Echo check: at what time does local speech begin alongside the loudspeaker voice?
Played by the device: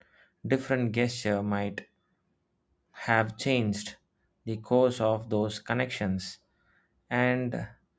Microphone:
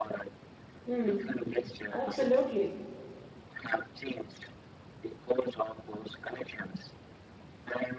0.8 s

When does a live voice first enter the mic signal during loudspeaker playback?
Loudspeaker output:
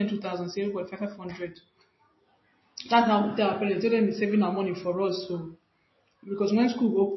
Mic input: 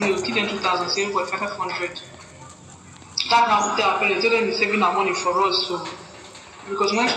none

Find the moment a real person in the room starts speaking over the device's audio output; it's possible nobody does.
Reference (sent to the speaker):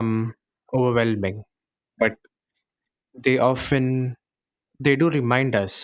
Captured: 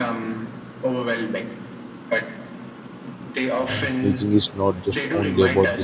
3.6 s

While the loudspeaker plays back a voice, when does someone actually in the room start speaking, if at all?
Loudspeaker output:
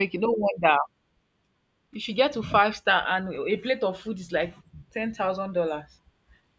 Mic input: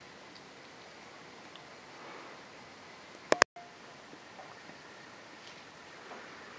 none

